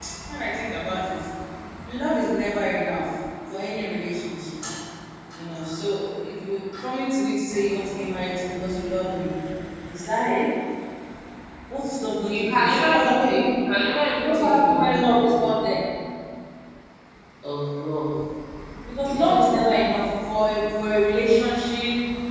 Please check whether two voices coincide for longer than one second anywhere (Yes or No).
Yes